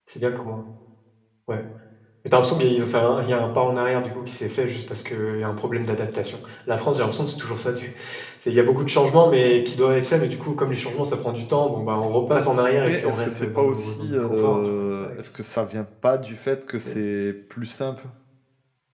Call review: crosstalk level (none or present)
present